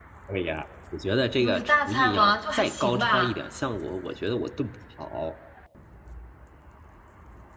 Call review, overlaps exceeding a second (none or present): present